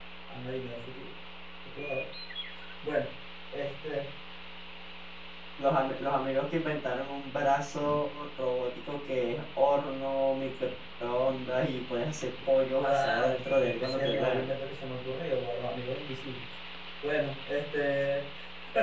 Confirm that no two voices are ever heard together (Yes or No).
No